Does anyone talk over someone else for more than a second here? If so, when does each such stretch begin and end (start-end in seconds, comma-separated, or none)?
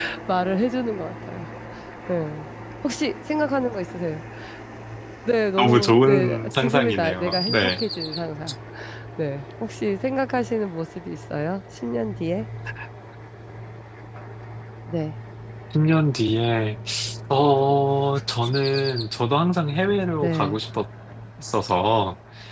5.6-7.8